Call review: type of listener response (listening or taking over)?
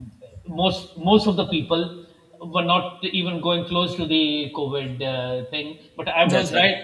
listening